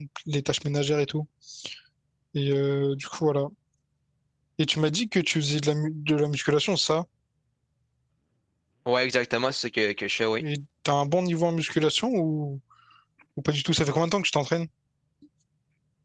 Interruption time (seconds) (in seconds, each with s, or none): none